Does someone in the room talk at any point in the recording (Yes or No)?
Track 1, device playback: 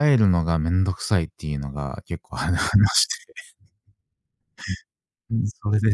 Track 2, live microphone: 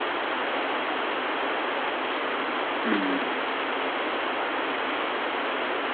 Yes